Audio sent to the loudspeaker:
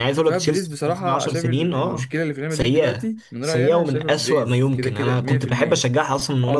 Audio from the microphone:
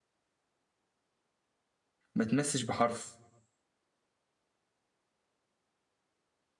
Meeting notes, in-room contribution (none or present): present